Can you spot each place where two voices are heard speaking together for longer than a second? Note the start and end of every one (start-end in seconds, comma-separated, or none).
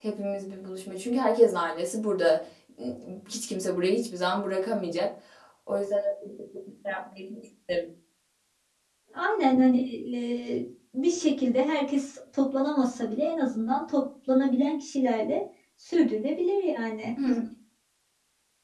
none